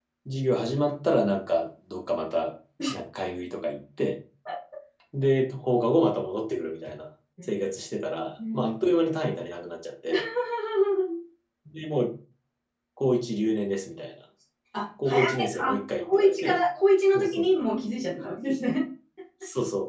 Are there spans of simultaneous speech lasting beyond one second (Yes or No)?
Yes